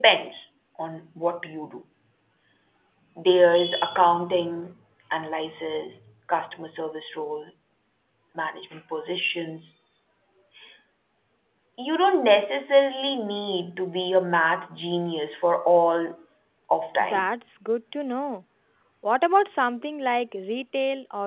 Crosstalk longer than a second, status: none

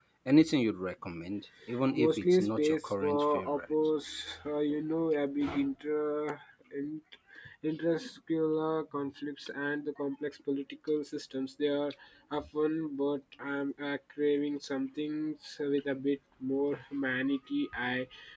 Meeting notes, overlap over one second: present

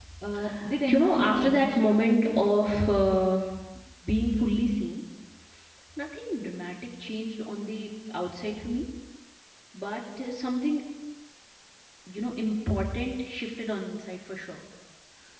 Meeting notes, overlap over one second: present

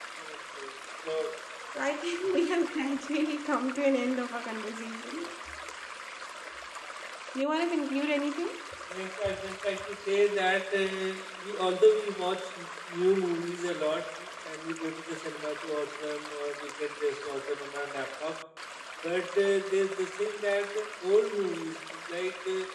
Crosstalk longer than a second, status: none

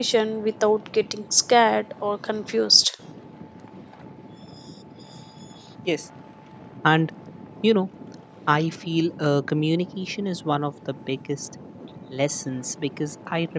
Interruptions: none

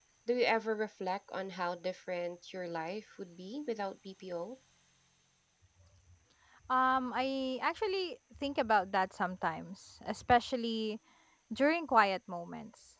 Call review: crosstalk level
none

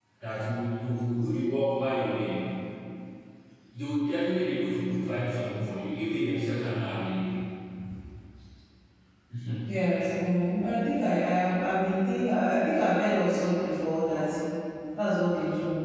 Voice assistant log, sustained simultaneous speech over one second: none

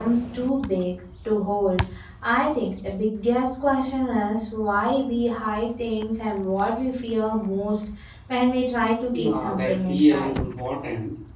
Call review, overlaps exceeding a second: present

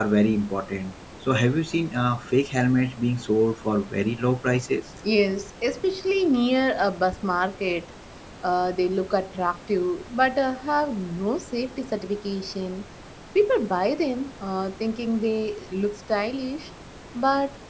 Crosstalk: none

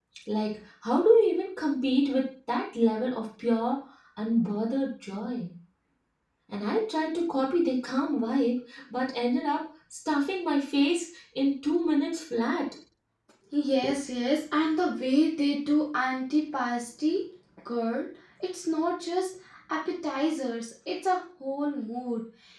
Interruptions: none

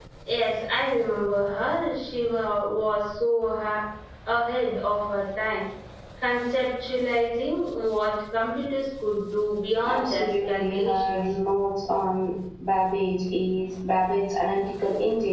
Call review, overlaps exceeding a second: present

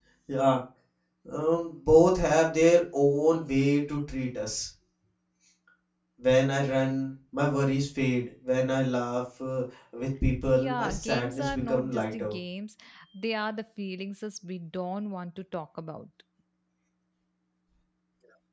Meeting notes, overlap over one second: present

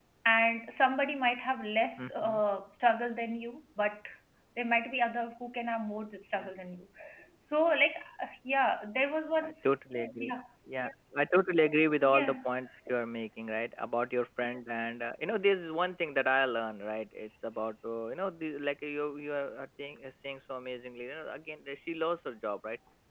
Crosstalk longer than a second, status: none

